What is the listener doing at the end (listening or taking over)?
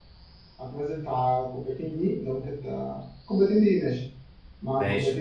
taking over